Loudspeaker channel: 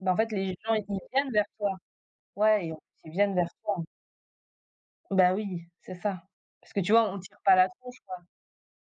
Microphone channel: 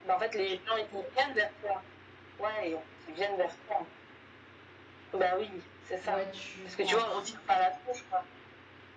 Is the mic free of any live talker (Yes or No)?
No